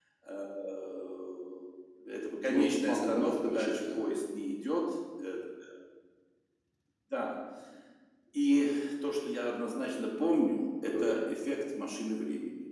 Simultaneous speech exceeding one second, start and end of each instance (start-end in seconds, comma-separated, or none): 2.4-4.1